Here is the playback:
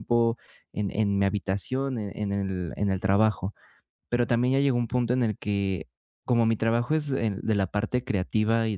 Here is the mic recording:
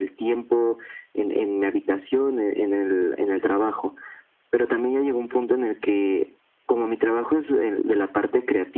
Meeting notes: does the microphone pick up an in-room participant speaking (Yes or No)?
No